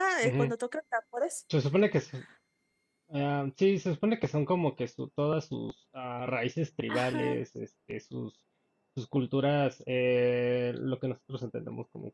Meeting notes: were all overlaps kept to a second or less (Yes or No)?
Yes